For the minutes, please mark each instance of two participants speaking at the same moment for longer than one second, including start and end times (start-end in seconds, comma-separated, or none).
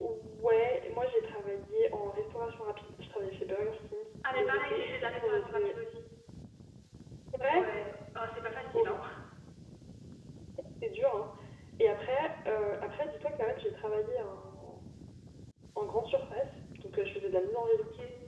4.3-5.7